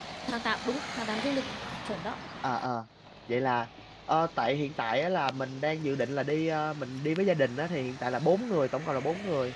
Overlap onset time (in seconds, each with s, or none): none